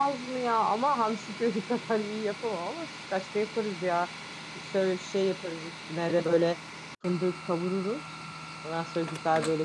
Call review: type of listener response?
listening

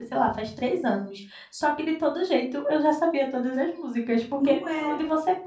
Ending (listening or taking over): listening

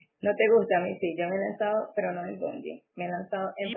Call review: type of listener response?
taking over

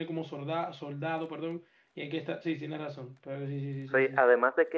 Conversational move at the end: taking over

